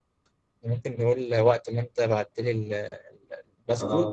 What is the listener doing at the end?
listening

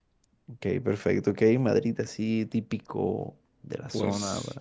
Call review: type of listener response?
taking over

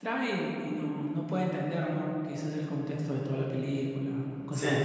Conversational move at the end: taking over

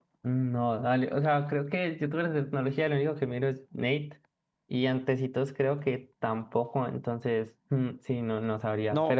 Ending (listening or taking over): taking over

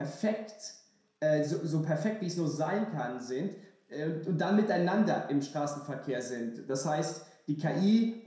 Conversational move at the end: listening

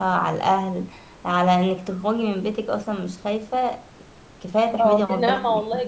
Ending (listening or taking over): taking over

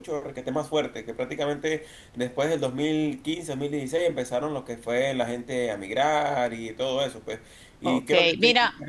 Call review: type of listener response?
taking over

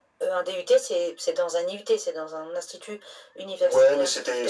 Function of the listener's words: taking over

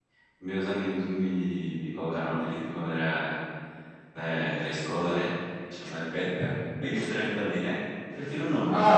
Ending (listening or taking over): taking over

